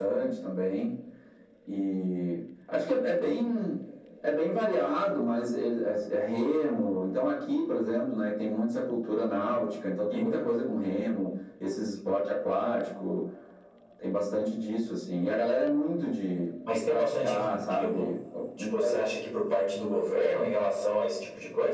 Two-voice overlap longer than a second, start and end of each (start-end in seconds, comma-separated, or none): 16.7-18.1